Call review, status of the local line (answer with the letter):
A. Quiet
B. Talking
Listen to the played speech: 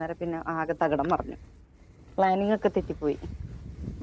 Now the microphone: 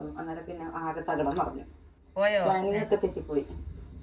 B